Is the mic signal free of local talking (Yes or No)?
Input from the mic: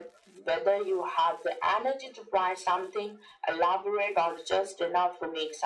Yes